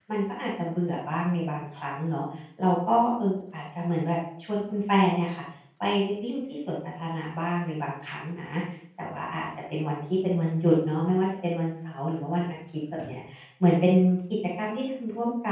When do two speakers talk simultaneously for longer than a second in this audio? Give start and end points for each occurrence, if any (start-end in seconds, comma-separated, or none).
none